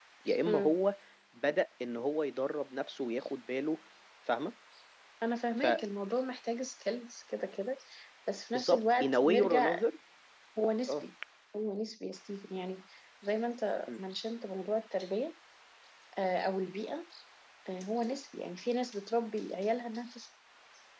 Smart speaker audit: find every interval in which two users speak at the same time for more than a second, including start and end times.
8.5-9.8

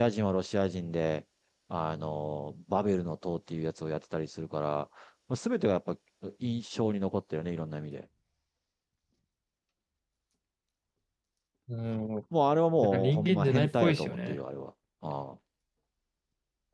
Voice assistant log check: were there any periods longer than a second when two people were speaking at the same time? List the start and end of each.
12.8-14.4

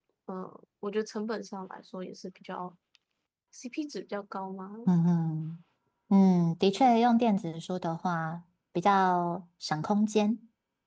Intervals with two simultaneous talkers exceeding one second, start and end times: none

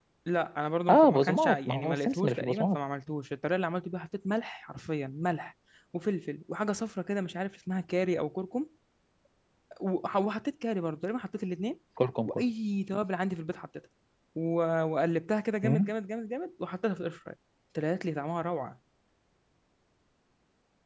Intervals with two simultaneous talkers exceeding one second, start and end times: 0.9-2.8

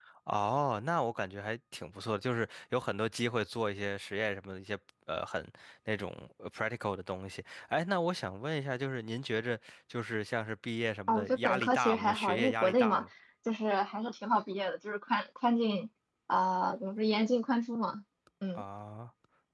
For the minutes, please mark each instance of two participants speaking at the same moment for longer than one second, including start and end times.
11.1-13.1

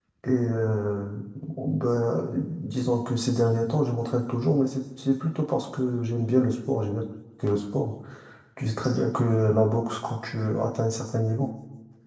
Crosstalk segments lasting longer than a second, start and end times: none

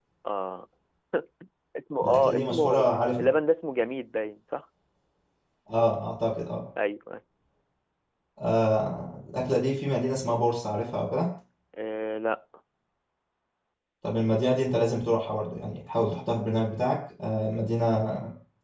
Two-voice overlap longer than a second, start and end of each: 2.0-3.2

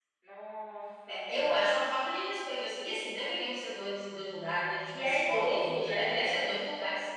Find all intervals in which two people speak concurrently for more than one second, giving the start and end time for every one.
5.0-6.5

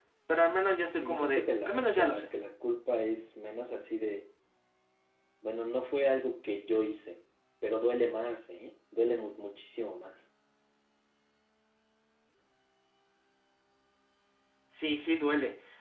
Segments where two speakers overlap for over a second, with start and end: 1.0-2.3

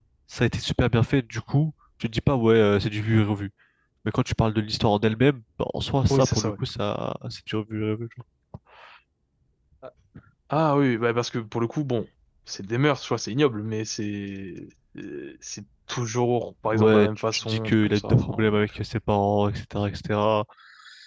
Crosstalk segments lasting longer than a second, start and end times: 16.7-18.7

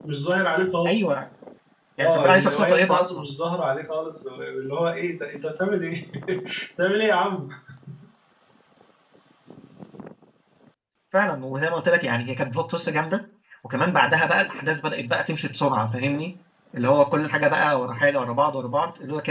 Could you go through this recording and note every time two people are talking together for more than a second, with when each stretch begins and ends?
2.0-3.2

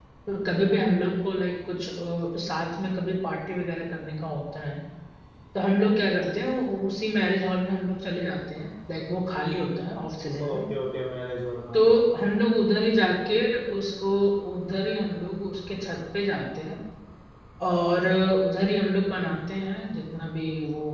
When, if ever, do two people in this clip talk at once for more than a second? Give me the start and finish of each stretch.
none

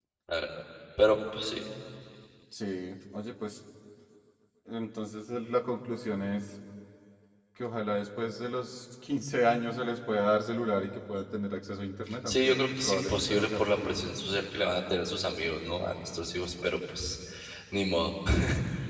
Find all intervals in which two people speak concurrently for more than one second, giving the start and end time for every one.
12.3-14.0

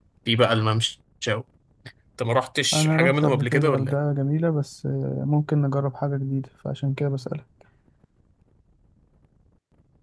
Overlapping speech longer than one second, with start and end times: 2.7-4.0

